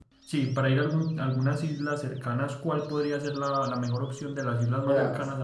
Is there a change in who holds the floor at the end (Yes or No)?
Yes